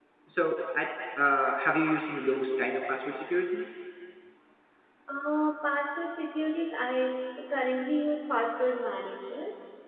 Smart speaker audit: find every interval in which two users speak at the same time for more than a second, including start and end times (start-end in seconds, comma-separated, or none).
none